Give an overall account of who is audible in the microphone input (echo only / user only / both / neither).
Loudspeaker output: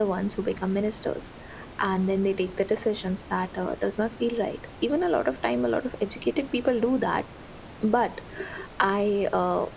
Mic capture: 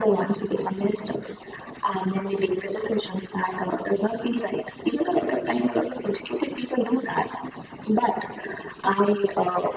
echo only